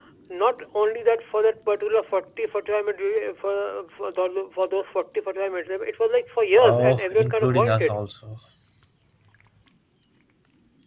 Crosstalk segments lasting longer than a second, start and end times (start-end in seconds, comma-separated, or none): 6.6-7.9